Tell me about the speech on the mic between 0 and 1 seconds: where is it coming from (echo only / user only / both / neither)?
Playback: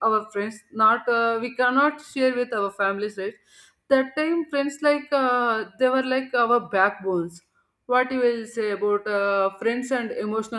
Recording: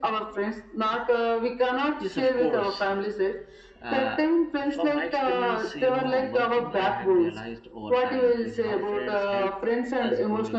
echo only